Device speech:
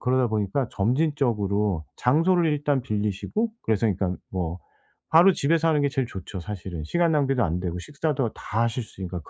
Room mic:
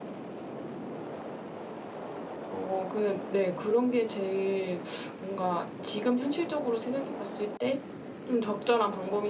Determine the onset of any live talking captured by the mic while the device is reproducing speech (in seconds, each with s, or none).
2.5 s